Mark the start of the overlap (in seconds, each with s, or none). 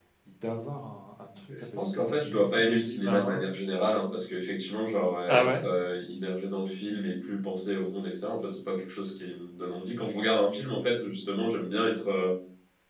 1.7 s